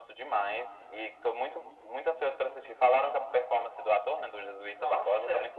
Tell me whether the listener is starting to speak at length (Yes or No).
Yes